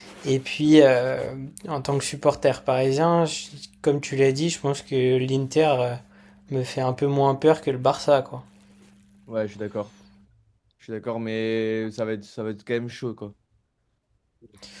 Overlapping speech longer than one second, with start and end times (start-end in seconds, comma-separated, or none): none